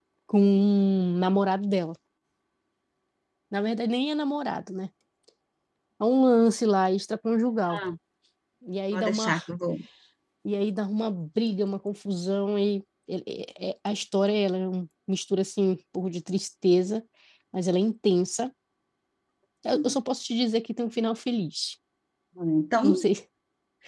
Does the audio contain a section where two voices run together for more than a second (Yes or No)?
No